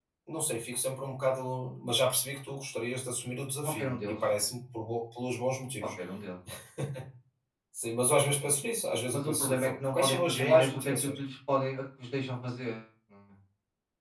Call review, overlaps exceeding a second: present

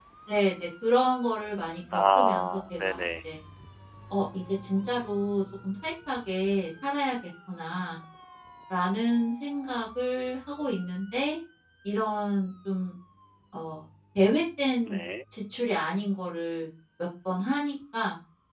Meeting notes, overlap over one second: present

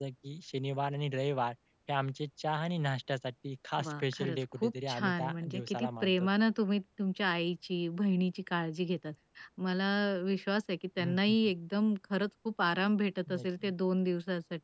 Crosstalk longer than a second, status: present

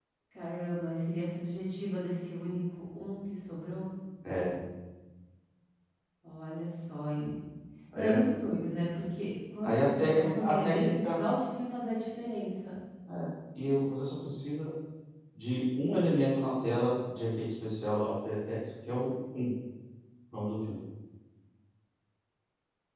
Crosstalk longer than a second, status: present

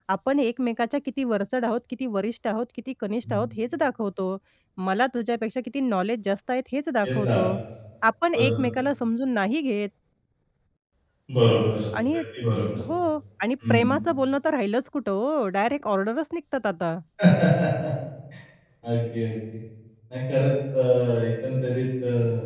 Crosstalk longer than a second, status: none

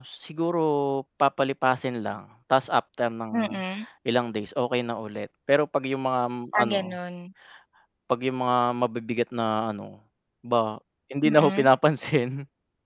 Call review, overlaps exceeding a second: none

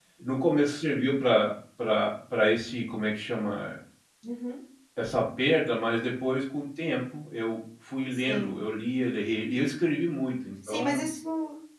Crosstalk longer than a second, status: none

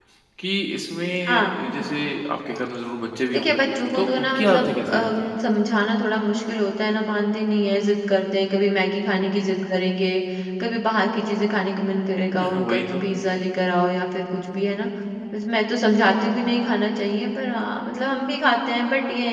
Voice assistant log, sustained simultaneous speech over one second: present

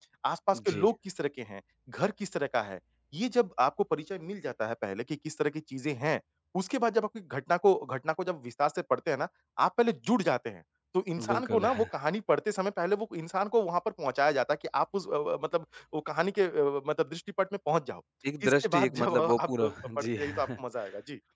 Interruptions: present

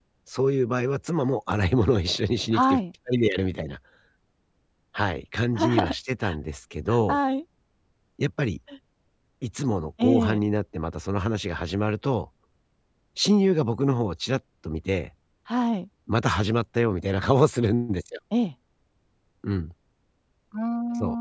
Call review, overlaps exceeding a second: none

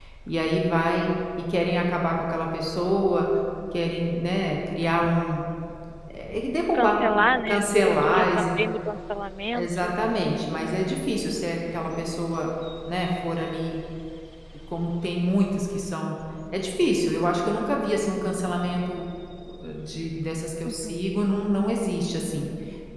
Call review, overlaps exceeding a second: present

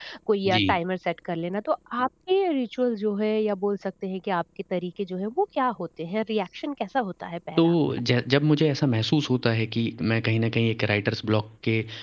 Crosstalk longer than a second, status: none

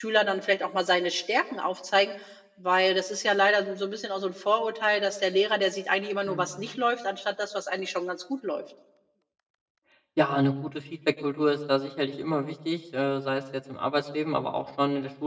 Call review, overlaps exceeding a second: none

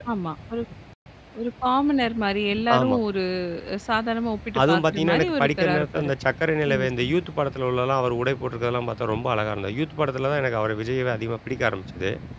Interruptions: present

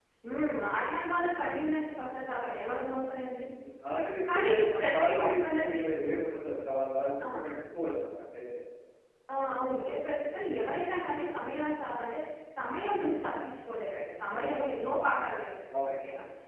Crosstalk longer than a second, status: present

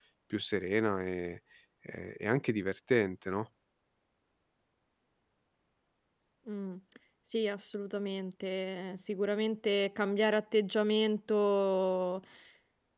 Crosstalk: none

